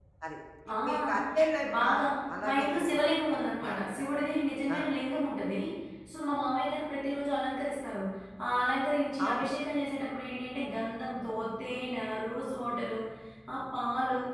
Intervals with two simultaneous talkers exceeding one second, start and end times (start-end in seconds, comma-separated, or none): 2.4-4.2